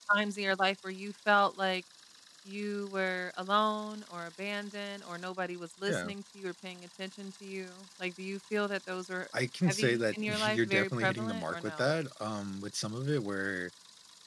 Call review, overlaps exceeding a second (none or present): present